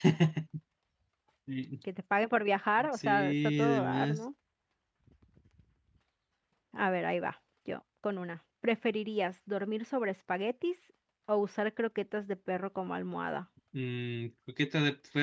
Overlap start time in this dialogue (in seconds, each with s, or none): 2.8 s